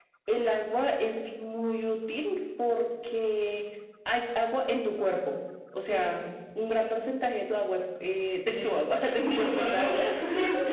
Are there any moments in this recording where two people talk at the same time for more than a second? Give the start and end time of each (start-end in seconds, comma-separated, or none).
8.5-9.9